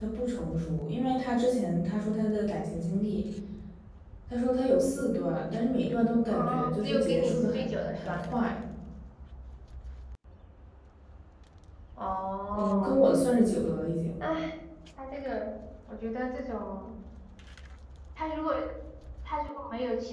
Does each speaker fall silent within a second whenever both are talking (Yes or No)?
No